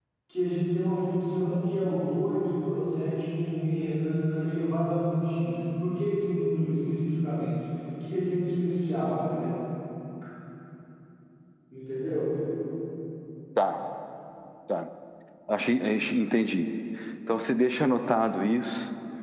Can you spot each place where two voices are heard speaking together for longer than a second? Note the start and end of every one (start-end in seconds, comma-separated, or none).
none